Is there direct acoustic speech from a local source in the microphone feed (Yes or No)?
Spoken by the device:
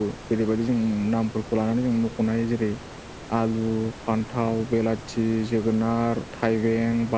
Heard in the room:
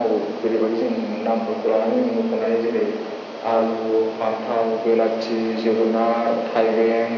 No